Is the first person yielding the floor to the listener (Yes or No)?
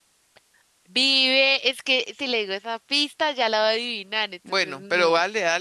Yes